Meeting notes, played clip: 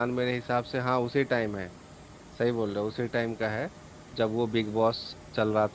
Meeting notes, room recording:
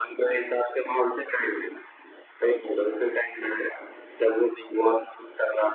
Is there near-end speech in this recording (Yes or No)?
No